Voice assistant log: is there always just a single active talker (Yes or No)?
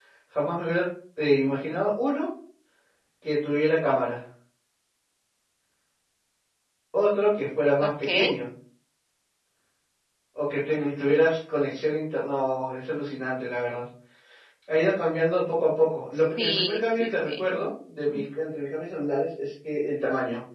No